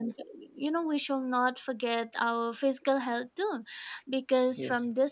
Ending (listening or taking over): listening